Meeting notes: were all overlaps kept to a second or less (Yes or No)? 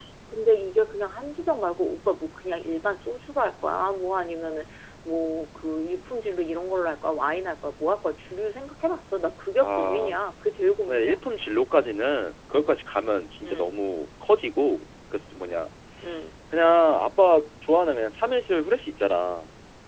Yes